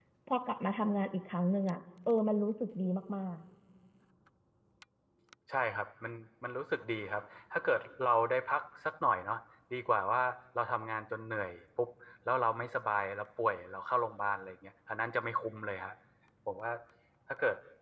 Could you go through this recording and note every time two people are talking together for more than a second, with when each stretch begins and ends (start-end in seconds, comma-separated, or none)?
none